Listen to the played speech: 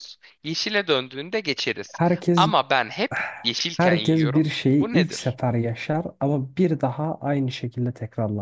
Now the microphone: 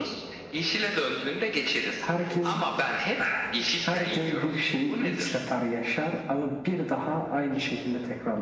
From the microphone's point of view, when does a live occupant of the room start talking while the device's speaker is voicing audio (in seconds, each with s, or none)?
none